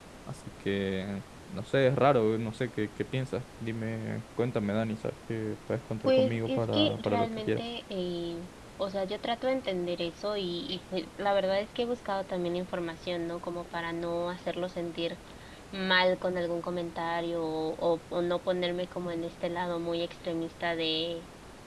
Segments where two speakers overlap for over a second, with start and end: 6.0-7.6

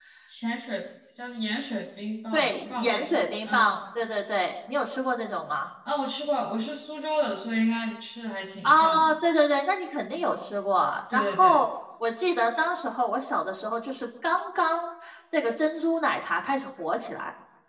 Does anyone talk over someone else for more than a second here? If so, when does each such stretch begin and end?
2.3-3.8

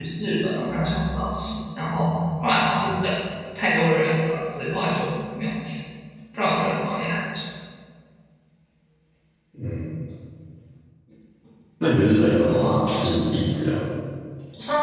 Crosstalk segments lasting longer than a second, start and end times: 12.0-13.2

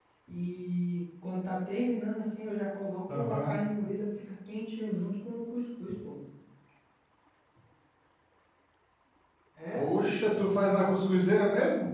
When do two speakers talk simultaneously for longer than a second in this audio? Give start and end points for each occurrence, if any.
none

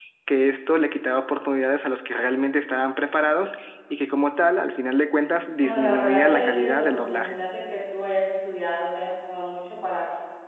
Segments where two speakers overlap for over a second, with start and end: 5.6-7.4

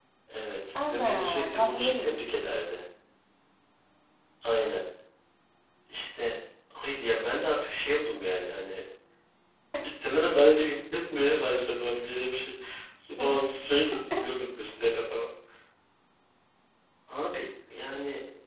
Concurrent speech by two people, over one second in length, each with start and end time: 0.8-2.2

